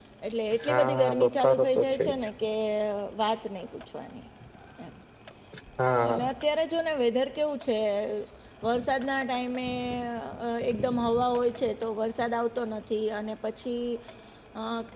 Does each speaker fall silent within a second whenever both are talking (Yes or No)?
No